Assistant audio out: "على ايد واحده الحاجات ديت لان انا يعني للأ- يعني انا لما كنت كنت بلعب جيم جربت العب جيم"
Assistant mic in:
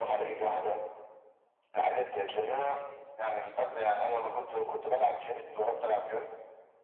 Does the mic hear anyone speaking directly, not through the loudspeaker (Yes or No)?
No